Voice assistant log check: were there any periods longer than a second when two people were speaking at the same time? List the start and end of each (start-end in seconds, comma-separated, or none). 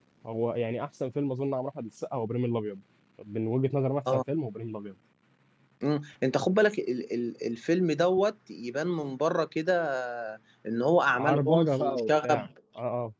11.2-12.5